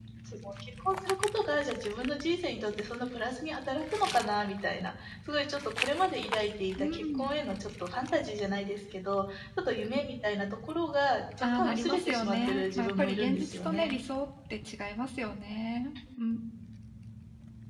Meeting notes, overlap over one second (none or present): present